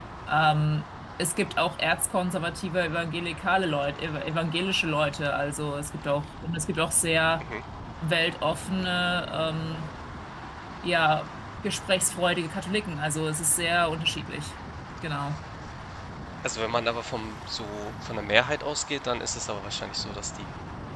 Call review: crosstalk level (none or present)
none